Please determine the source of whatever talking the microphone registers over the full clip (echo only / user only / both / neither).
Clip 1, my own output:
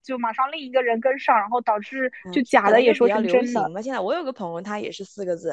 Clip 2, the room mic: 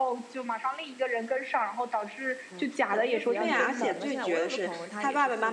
both